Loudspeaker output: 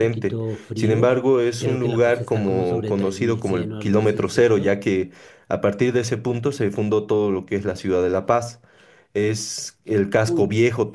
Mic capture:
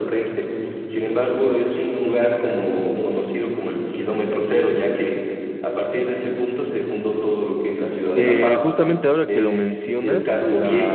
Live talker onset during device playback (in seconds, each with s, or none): 8.1 s